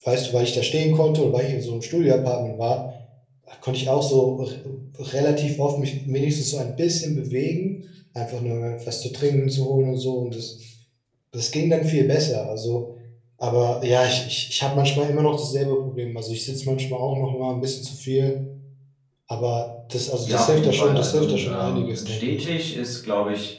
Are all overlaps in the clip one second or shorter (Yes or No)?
No